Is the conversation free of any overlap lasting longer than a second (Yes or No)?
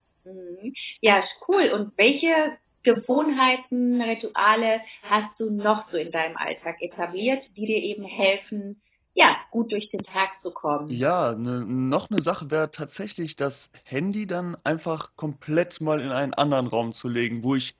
Yes